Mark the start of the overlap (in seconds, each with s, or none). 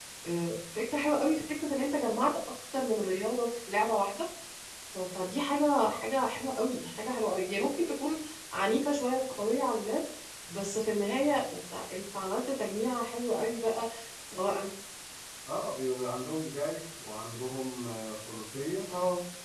none